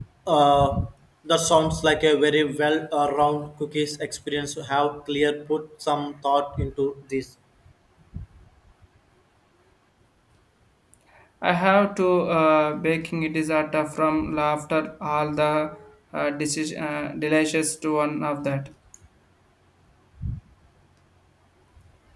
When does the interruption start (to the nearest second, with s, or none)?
none